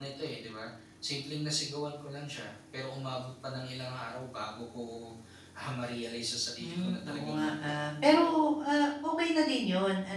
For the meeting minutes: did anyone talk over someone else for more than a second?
Yes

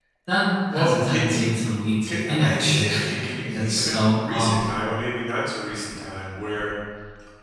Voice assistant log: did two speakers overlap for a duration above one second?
Yes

